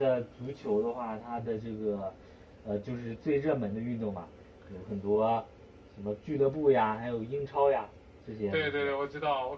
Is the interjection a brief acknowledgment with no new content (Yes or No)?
No